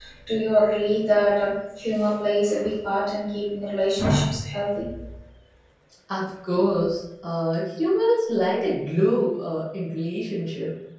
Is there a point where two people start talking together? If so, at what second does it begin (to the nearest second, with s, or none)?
none